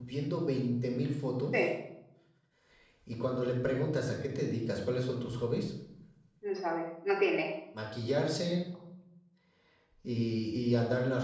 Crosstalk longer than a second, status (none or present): none